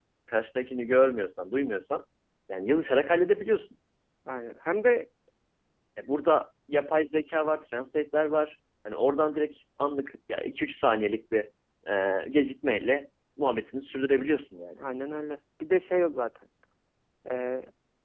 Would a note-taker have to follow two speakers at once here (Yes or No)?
No